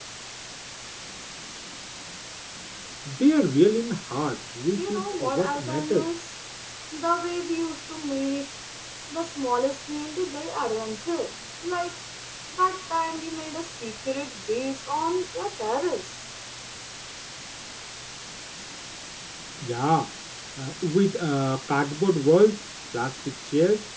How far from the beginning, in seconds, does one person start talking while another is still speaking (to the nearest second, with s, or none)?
5 s